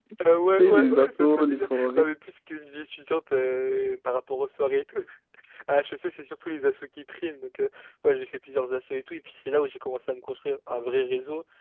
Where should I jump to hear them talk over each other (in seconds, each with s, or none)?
0.6 s